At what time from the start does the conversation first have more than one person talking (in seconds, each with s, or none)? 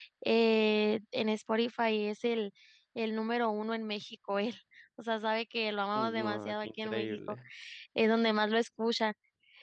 5.9 s